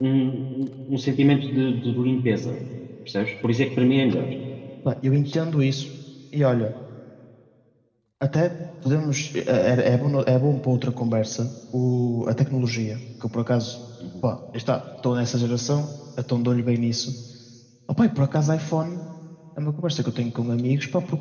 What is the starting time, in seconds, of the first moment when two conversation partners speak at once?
none

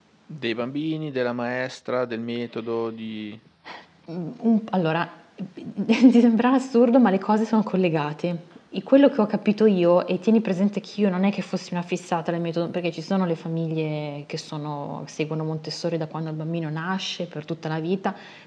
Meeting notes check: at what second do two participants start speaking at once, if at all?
none

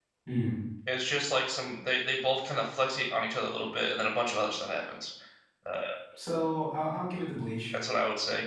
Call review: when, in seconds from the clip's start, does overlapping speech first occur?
none

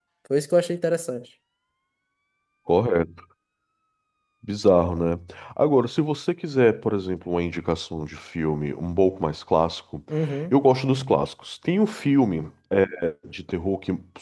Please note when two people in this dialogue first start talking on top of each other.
none

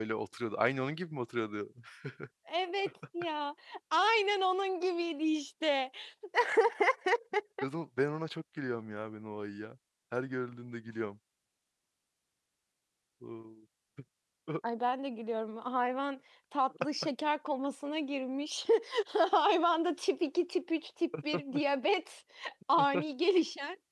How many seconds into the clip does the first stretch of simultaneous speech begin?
none

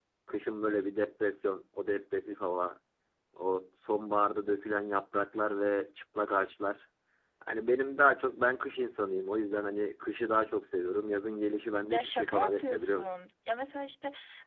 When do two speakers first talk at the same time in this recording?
11.8 s

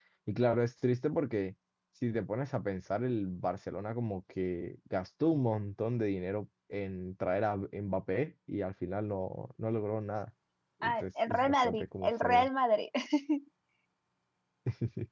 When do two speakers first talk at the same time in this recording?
10.8 s

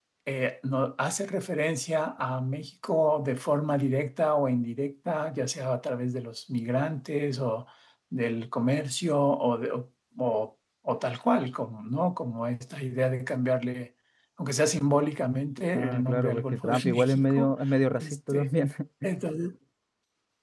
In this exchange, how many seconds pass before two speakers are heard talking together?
15.7 s

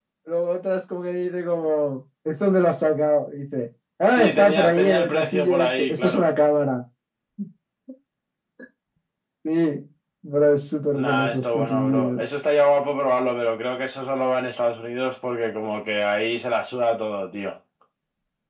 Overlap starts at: 4.1 s

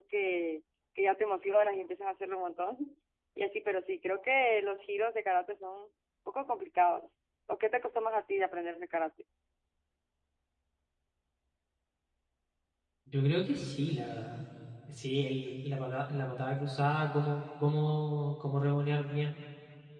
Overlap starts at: none

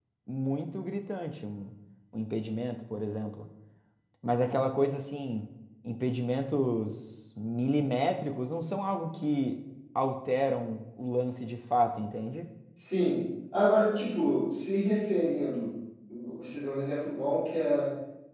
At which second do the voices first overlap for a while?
none

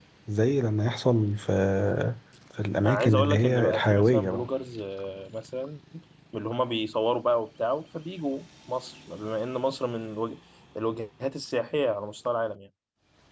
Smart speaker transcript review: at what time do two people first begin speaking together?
2.8 s

